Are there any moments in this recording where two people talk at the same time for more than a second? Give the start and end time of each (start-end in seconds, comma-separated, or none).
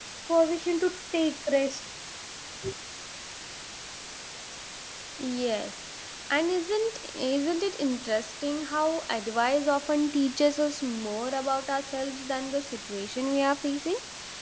none